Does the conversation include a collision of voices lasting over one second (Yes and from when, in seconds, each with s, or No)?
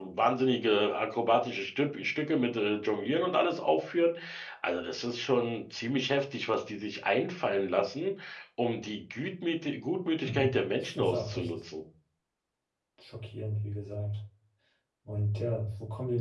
Yes, from 10.2 s